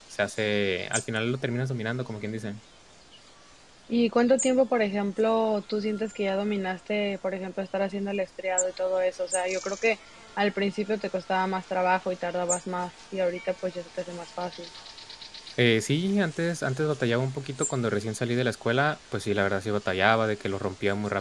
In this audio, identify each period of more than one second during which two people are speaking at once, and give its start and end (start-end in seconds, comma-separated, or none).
none